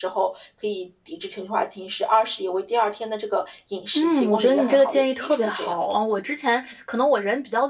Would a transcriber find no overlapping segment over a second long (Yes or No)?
No